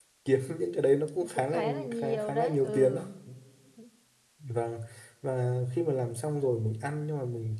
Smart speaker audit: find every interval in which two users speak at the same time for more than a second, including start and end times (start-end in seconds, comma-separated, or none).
1.3-3.0